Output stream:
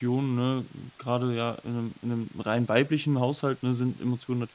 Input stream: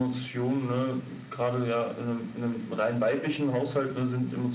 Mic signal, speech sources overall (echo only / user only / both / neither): echo only